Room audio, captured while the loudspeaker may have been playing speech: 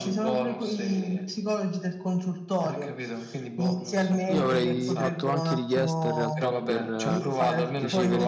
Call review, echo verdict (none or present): present